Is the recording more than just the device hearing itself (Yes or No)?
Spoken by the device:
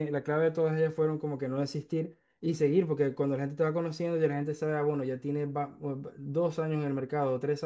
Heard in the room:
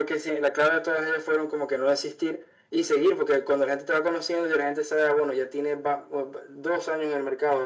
No